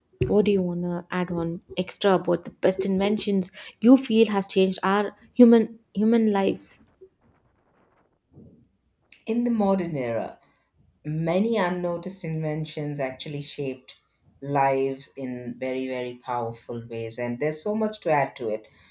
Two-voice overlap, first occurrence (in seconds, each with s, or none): none